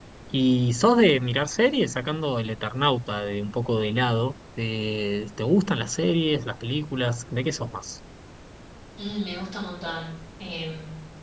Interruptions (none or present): none